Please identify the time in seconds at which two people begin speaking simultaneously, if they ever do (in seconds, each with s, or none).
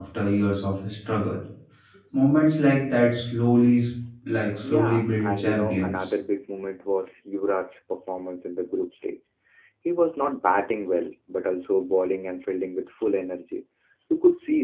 4.6 s